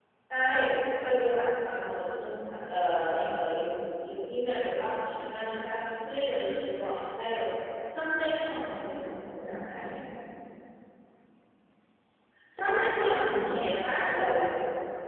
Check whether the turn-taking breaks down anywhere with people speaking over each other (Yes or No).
No